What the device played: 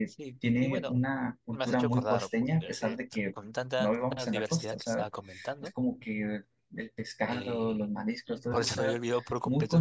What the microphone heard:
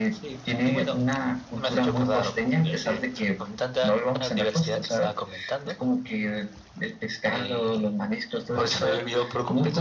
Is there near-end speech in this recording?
No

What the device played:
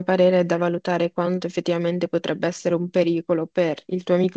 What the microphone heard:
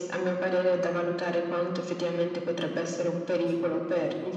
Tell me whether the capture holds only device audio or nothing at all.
No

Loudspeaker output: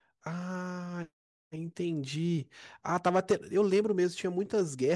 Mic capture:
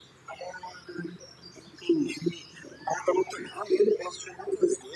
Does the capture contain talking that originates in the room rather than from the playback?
No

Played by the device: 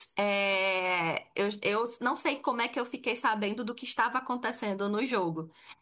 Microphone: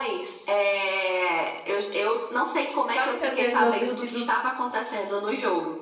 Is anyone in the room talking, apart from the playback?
Yes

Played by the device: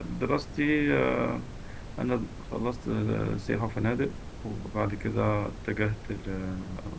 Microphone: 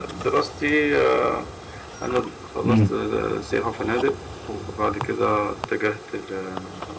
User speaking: Yes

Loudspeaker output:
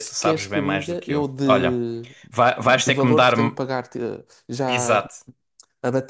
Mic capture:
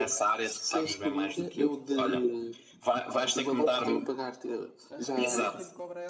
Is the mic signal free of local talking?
No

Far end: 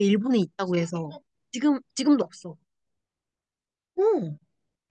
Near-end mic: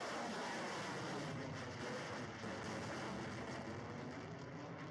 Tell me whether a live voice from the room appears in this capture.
No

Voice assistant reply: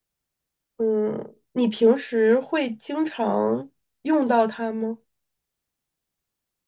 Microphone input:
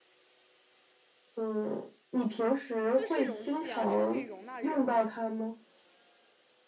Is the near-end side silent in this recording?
No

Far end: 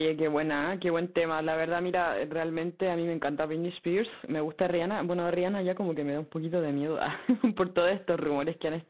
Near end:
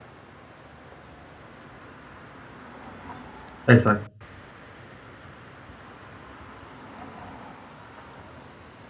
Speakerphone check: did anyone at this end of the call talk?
Yes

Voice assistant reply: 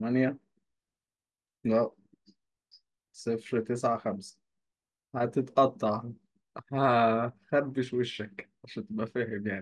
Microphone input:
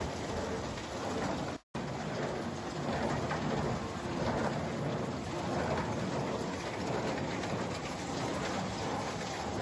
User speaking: No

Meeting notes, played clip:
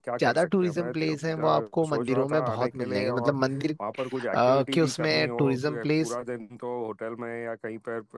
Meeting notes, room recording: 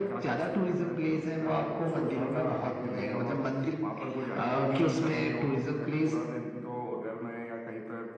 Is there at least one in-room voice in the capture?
No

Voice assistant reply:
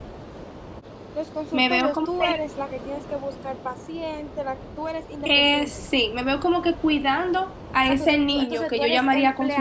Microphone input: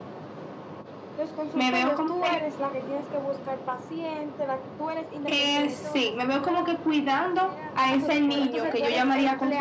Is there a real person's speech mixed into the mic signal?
Yes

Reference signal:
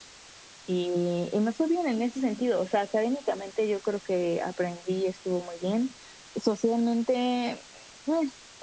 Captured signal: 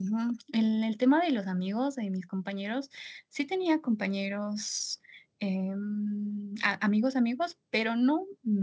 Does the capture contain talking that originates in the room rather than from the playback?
Yes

